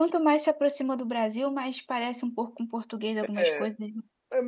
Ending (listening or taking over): taking over